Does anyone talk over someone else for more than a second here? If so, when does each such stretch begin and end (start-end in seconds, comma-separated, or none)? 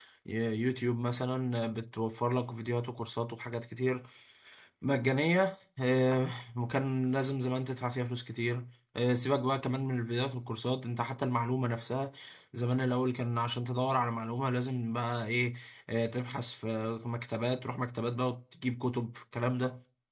none